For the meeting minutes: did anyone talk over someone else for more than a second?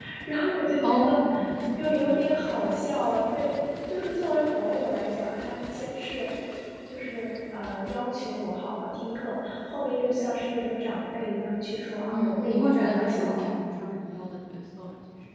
Yes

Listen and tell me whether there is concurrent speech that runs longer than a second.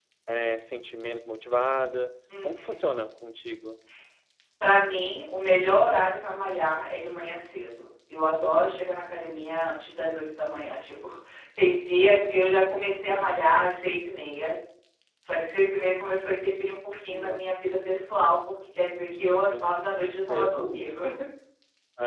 No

